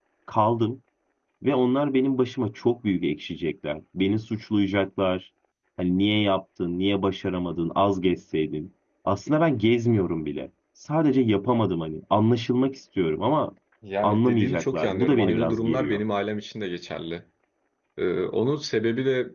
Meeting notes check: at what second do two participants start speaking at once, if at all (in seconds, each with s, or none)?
14.0 s